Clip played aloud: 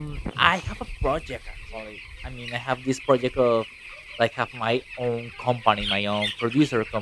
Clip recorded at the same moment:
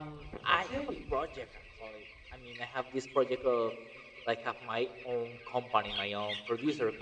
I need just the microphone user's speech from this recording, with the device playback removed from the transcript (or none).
Okay.